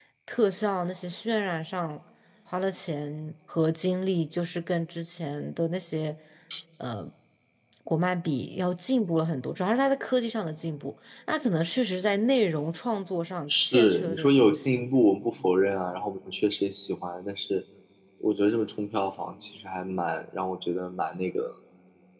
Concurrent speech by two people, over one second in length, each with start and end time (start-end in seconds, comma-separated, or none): 13.5-14.8